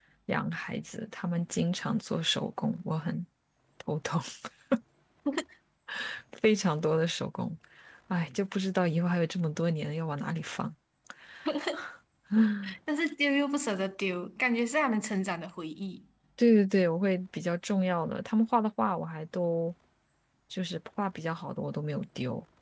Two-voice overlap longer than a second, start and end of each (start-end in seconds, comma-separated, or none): none